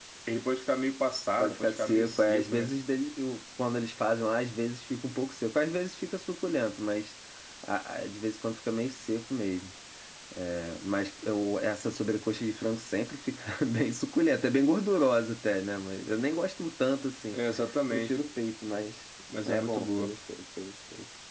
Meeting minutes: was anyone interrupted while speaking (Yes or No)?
Yes